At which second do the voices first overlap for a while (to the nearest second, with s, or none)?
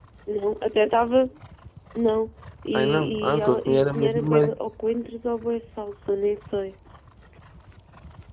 3 s